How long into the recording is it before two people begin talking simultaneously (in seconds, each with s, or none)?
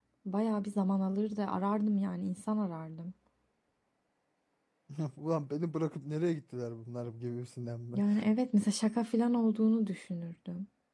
none